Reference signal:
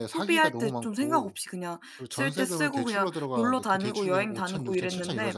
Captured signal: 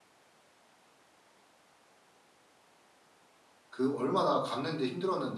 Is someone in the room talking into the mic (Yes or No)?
Yes